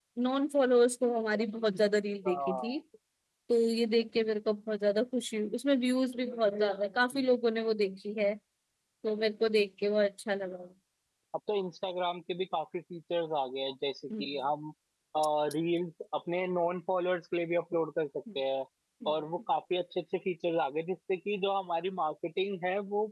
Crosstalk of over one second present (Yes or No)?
No